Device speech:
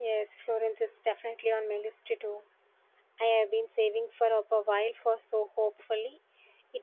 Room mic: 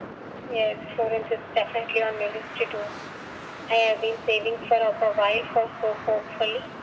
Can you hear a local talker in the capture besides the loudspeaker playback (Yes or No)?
No